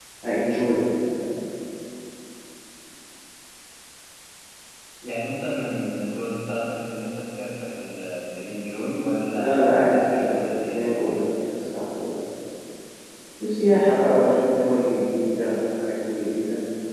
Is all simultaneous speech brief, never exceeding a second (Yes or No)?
No